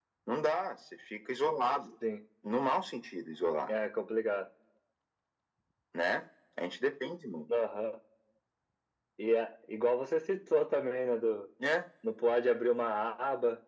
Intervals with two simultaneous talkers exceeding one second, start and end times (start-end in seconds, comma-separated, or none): none